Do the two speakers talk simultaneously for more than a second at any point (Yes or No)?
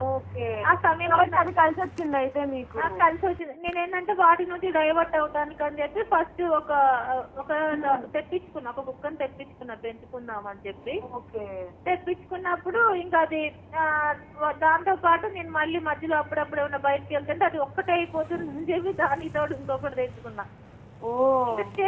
No